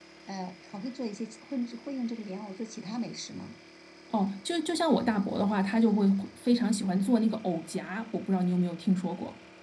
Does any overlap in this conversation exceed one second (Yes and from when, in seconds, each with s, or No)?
No